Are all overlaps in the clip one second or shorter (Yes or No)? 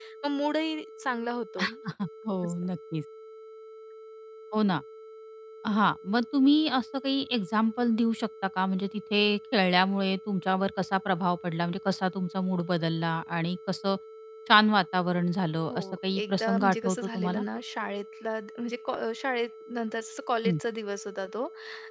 No